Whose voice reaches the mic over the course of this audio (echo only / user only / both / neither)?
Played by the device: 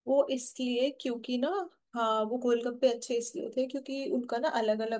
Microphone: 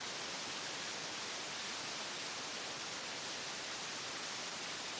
neither